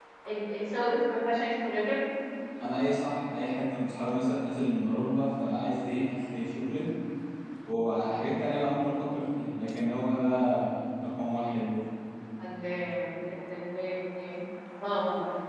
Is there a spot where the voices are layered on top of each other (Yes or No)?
No